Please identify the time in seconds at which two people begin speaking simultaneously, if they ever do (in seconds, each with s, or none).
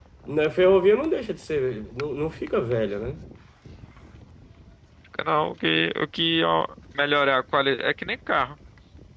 none